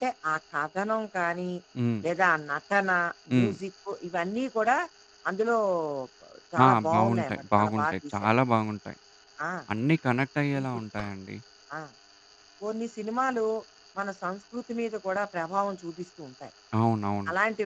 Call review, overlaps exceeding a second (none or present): present